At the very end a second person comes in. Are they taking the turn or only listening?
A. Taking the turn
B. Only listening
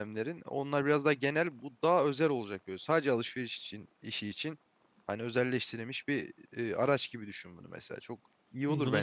A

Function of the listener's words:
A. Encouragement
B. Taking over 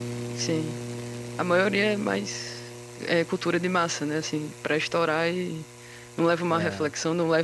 A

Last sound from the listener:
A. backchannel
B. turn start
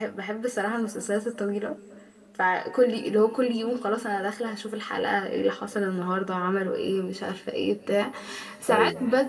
A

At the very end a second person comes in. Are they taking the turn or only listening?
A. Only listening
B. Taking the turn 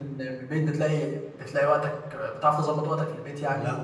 B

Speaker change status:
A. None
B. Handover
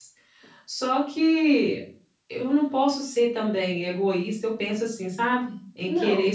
A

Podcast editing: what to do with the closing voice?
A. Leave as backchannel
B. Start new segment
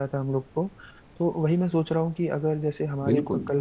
A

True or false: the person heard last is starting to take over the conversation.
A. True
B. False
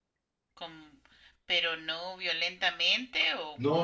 A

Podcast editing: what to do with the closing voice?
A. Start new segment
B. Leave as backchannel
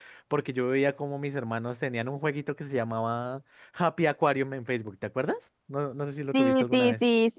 A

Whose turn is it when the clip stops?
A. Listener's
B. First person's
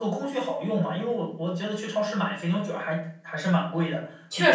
B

